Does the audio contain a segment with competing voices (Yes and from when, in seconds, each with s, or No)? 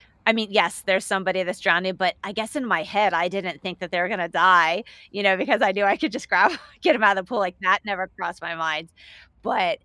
No